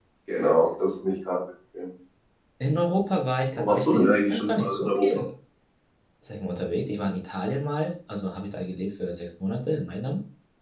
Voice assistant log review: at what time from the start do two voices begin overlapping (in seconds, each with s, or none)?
3.5 s